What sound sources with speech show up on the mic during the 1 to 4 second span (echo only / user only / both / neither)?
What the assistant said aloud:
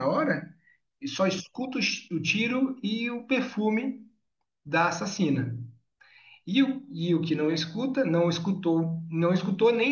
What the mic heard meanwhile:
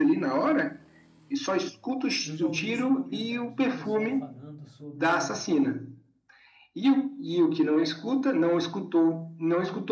both